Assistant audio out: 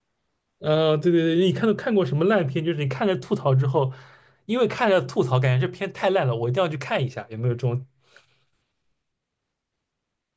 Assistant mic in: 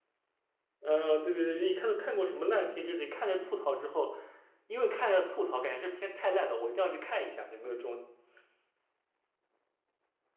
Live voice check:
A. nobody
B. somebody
A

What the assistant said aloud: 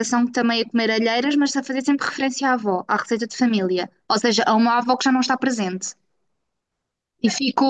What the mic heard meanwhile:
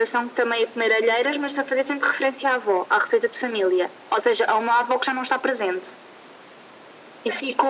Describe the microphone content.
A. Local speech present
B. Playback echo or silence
B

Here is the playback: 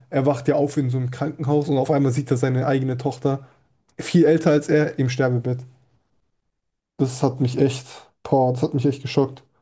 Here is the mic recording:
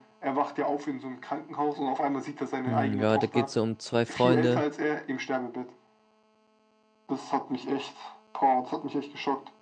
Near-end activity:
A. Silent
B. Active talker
B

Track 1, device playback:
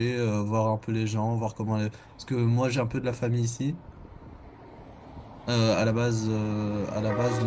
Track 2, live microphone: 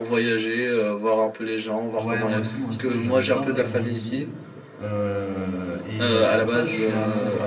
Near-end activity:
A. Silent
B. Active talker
B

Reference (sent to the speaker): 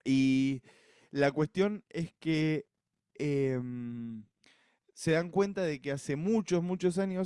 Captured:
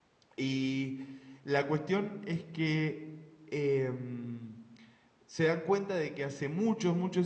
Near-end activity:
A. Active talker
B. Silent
B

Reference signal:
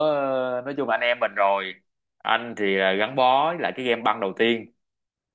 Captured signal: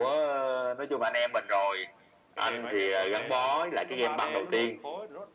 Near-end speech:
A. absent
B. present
B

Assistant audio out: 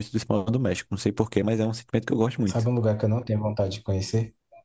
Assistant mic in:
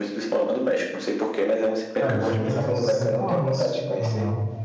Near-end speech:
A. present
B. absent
A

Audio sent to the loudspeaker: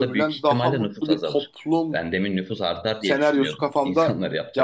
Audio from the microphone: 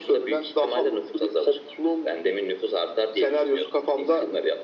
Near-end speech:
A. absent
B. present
A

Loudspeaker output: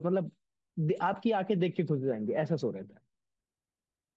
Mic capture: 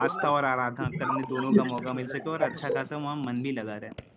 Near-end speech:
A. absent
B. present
B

